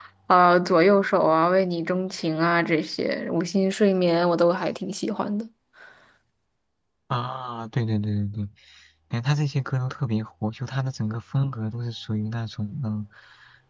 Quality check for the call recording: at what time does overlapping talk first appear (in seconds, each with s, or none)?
none